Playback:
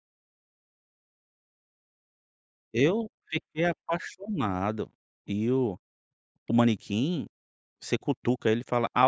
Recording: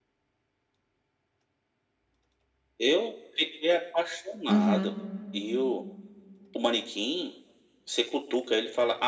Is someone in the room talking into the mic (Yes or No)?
Yes